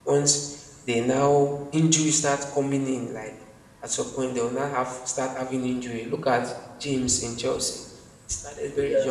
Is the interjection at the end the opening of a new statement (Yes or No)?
No